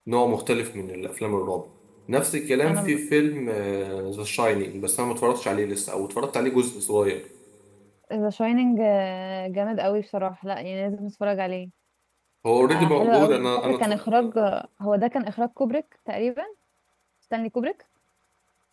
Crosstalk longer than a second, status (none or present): present